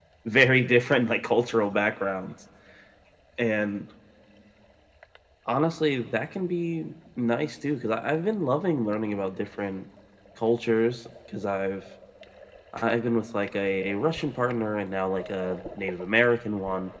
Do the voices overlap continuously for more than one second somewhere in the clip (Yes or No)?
No